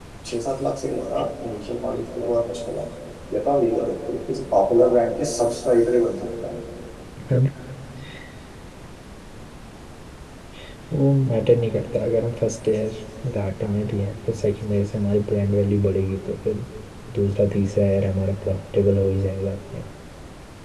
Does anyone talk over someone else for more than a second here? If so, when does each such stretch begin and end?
none

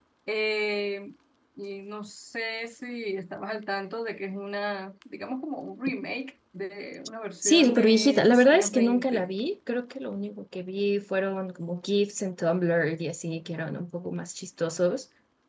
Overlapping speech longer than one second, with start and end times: 7.4-9.3

